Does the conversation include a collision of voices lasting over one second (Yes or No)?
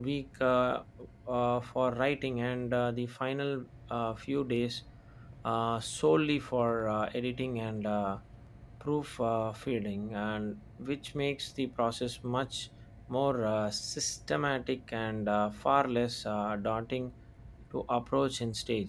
No